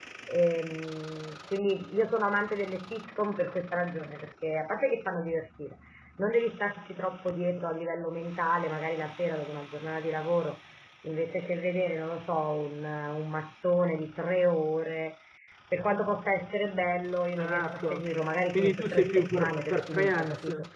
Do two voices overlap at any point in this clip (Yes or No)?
Yes